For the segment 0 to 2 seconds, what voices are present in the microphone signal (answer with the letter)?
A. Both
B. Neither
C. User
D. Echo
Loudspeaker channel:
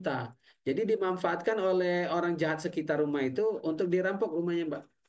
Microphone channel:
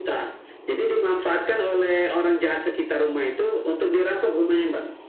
D